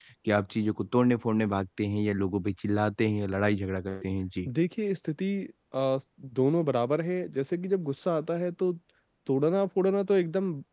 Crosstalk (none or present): none